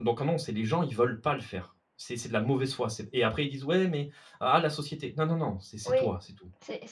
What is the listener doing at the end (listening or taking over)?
taking over